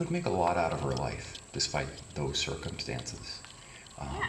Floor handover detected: Yes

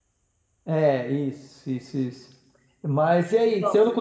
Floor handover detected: No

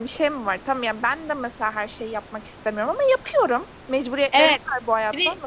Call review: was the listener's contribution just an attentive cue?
No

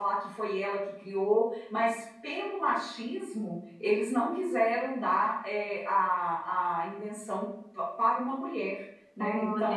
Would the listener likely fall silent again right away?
No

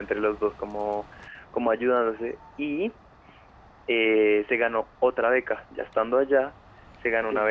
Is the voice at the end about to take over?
No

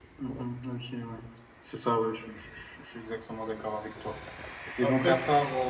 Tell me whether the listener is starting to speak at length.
No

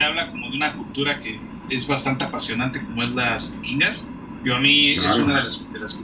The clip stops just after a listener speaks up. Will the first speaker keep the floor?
Yes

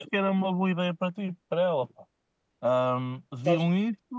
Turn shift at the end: No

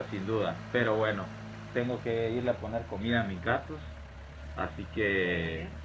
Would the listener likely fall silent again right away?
Yes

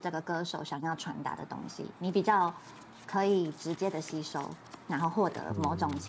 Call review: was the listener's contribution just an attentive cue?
Yes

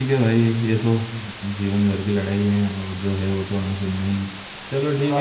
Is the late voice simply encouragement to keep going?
Yes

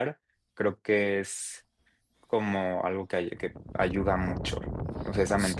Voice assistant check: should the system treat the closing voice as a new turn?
Yes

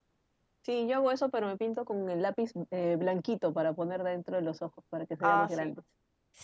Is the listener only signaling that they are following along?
No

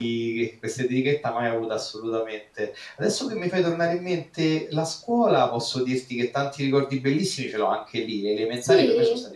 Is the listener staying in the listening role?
Yes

